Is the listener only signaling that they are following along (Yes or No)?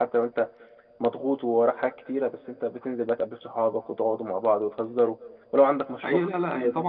No